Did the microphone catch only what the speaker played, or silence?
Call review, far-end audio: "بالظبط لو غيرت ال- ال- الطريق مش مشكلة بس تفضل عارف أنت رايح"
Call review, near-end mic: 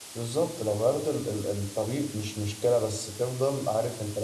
Yes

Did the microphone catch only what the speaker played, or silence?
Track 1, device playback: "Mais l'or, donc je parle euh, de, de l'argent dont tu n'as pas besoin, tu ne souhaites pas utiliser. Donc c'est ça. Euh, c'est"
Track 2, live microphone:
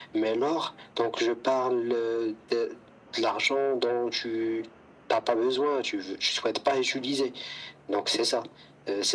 Yes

